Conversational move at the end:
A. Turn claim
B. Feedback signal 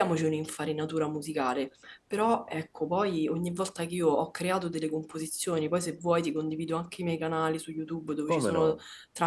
B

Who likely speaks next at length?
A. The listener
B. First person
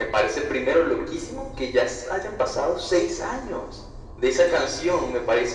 B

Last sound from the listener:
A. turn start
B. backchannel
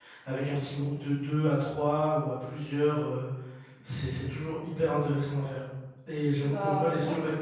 B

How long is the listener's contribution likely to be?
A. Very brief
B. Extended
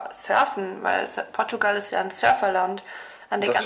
A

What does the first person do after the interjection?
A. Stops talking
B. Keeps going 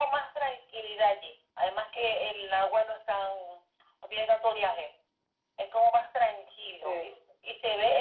B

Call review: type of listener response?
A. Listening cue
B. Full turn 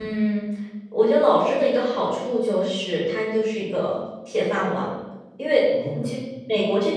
A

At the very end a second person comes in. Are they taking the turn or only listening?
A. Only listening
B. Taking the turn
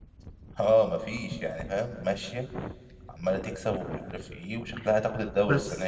B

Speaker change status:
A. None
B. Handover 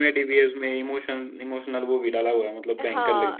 B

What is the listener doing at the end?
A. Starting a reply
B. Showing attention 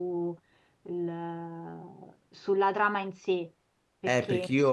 A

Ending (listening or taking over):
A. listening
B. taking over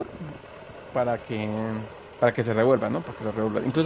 A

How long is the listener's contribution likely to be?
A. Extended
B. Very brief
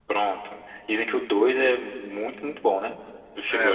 A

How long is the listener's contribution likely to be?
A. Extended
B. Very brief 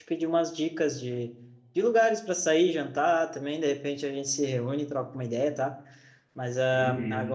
B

